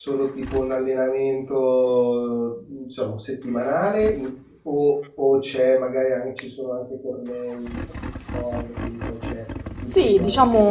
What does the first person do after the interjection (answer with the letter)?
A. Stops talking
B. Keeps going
A